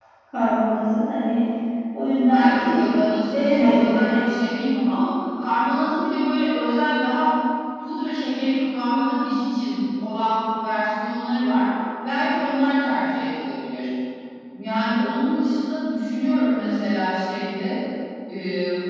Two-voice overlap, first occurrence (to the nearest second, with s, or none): 2 s